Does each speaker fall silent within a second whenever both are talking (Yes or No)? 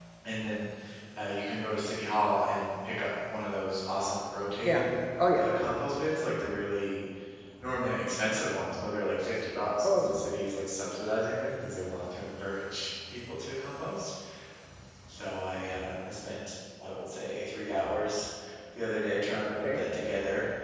Yes